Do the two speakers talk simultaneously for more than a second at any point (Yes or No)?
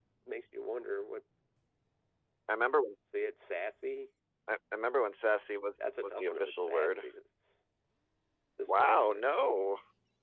Yes